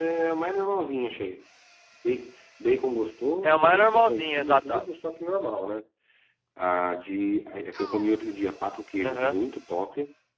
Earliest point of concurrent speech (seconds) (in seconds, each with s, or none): 3.4 s